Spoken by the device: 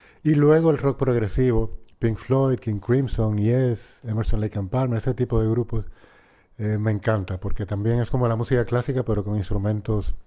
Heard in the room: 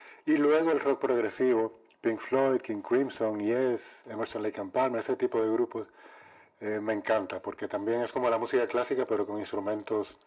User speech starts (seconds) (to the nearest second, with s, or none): none